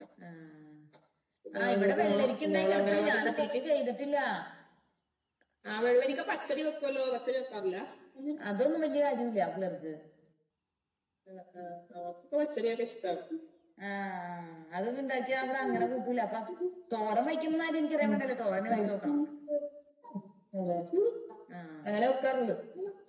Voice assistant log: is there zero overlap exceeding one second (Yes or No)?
No